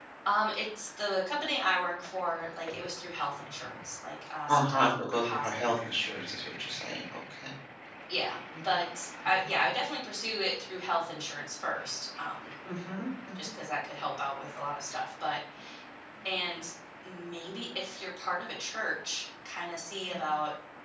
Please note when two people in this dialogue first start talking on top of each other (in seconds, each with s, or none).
4.5 s